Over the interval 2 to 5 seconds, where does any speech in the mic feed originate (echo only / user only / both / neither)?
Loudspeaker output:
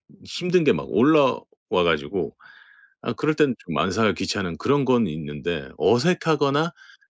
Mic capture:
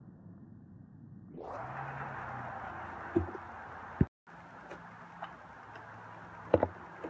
neither